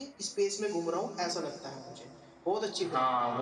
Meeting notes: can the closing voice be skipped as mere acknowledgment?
No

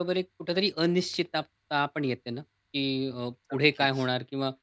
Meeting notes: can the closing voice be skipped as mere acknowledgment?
Yes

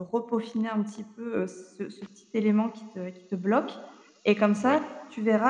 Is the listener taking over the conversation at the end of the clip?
No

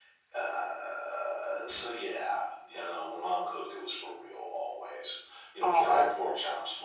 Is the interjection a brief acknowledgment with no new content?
Yes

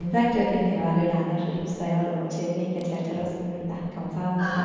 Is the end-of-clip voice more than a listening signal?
Yes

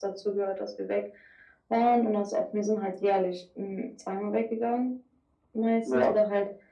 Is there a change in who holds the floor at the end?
No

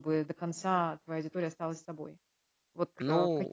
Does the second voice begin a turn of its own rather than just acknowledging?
No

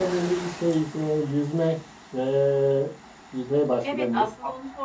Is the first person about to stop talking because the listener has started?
Yes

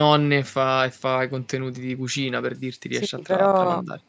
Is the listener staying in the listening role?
No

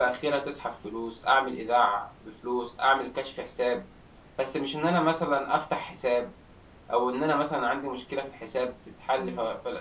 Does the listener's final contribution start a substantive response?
Yes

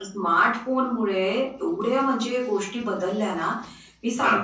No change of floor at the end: Yes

